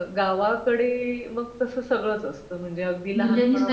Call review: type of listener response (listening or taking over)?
taking over